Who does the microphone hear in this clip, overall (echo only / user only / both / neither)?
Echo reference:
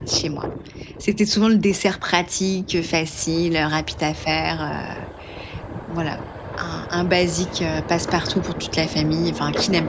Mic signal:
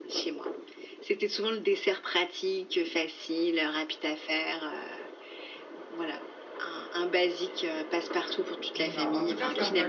both